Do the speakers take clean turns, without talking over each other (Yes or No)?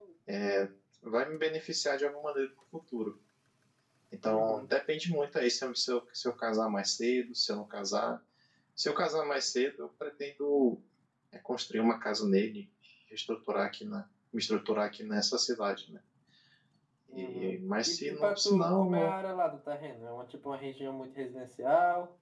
No